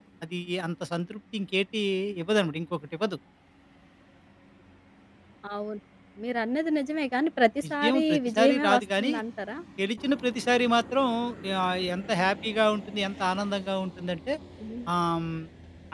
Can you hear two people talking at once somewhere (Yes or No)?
Yes